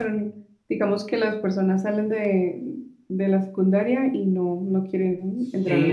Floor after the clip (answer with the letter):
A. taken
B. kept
A